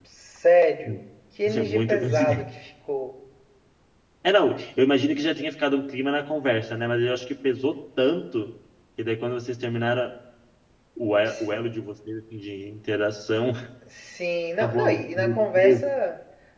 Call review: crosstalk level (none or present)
present